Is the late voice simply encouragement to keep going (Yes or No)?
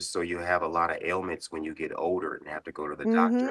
No